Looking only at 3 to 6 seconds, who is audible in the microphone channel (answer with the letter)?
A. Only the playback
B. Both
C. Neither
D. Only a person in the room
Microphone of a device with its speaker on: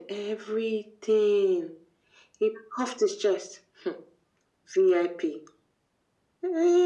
A